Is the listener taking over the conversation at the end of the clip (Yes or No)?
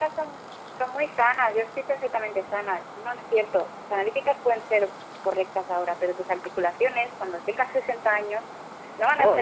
Yes